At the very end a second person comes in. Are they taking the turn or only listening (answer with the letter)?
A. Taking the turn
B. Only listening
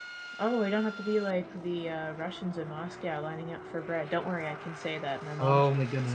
A